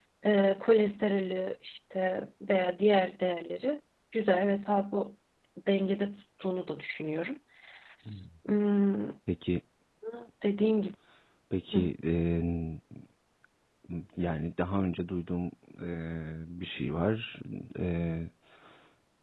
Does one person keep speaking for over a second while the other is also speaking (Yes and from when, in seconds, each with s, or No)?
No